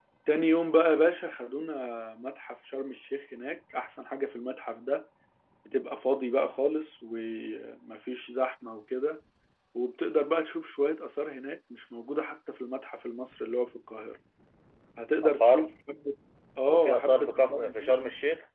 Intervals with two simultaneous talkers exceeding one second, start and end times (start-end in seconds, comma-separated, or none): 16.7-17.9